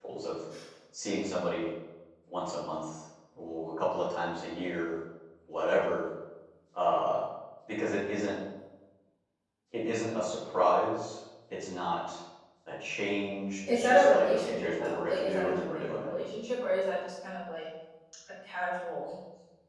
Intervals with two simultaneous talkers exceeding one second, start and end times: 13.7-16.1

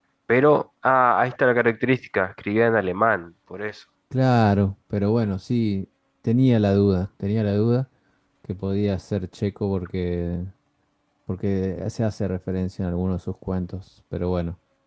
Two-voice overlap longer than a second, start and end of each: none

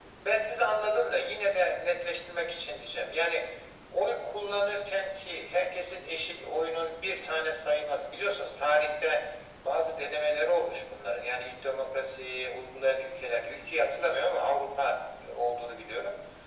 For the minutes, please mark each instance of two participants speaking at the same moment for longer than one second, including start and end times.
none

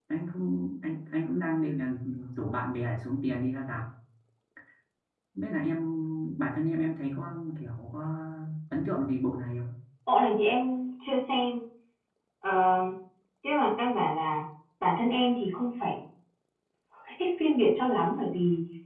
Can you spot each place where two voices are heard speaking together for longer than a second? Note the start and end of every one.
none

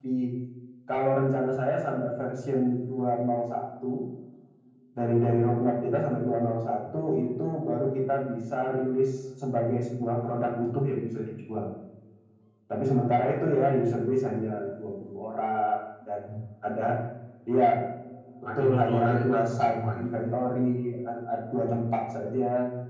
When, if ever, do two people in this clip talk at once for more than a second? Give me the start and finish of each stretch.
18.6-20.0

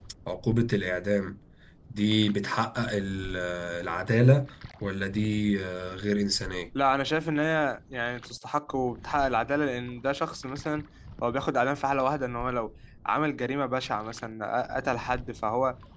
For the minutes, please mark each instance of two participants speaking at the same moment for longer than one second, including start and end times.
none

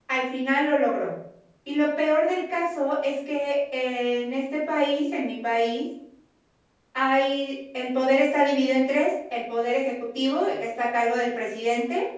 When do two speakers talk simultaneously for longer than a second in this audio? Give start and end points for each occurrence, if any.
none

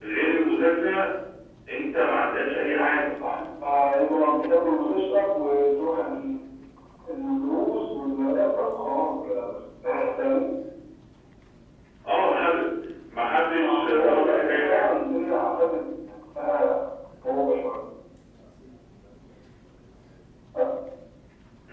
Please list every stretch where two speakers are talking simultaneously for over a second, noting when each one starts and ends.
13.5-14.9

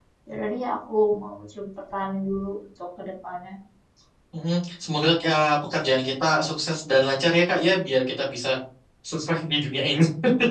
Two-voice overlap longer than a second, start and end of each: none

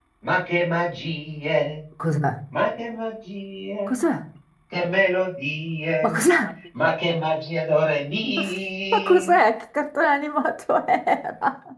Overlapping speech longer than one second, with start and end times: none

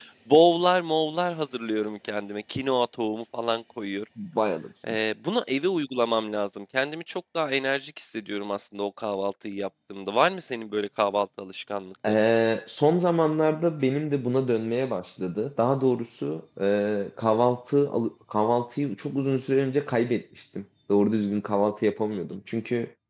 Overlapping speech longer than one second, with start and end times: none

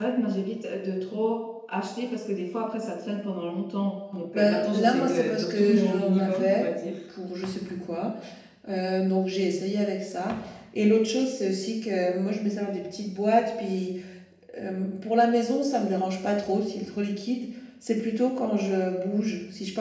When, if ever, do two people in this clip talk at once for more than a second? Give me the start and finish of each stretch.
4.3-6.7

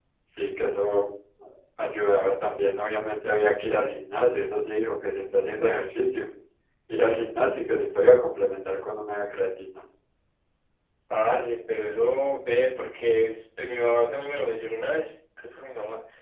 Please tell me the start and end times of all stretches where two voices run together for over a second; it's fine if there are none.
none

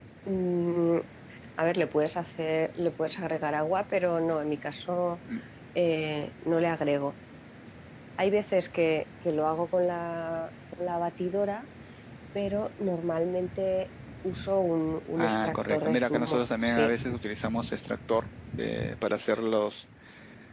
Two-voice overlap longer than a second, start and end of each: 15.2-16.9

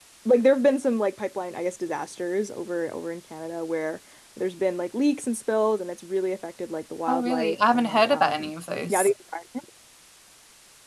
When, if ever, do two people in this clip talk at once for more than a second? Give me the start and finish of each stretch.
7.1-8.5

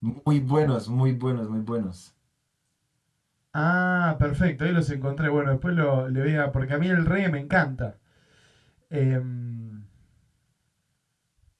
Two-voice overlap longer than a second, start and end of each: none

